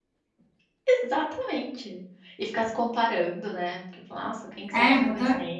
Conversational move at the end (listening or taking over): taking over